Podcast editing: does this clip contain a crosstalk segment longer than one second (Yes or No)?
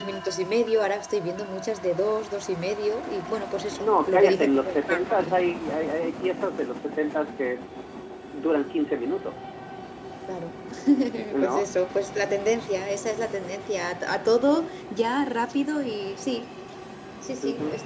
Yes